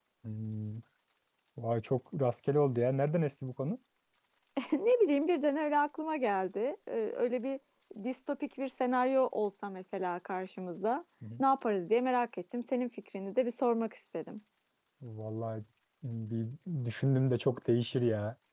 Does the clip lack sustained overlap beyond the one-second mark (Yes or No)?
Yes